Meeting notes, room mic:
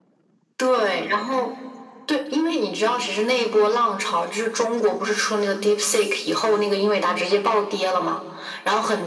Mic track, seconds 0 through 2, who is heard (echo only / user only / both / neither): echo only